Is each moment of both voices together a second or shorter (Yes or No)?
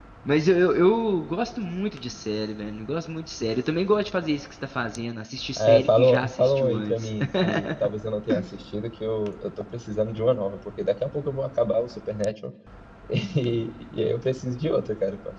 No